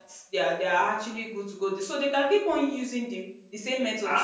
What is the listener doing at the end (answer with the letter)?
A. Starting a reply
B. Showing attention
A